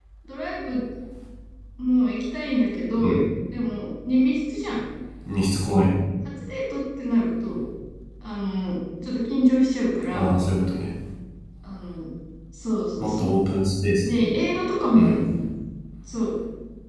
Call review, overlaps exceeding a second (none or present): none